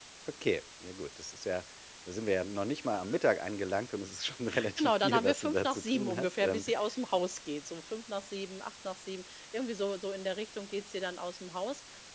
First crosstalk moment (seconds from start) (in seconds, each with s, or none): 4.8 s